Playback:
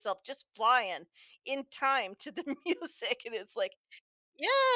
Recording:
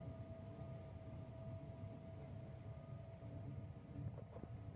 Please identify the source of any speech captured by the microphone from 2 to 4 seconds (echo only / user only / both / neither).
neither